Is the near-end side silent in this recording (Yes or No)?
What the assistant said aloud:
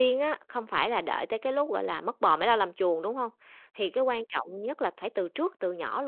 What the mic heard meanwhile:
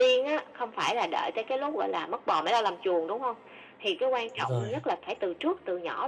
No